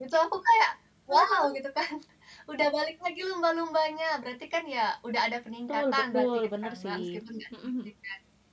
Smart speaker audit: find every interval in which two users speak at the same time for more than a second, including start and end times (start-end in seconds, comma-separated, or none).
5.7-7.0